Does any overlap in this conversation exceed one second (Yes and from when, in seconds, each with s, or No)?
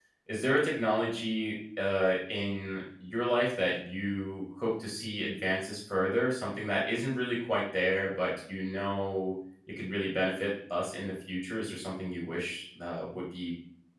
No